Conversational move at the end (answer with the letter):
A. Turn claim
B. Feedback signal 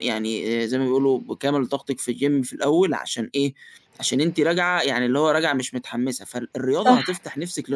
B